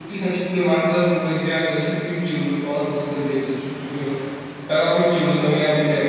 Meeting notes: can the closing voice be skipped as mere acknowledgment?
Yes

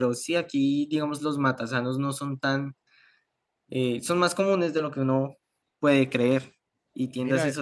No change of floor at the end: Yes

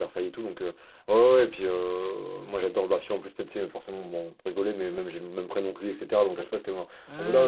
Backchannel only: Yes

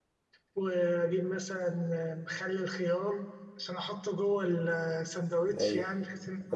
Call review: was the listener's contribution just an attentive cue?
No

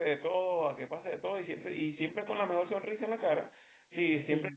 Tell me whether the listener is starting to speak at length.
No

